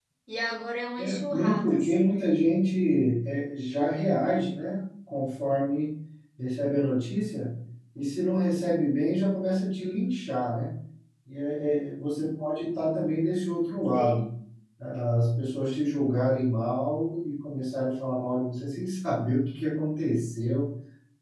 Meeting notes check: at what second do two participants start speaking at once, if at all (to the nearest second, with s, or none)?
1 s